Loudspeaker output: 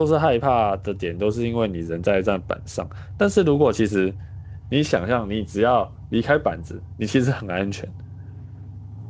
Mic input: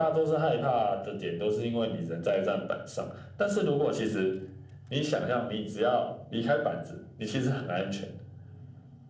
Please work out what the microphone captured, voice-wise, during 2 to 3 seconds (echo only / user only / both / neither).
echo only